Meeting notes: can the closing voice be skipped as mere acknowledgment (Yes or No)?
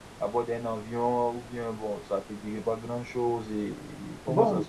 No